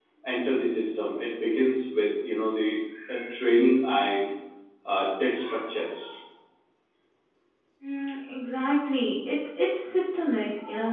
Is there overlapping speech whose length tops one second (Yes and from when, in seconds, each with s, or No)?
No